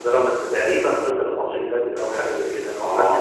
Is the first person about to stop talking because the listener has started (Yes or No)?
Yes